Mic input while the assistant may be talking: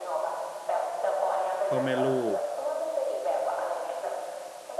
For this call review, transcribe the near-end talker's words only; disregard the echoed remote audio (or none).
พ่อแม่ลูก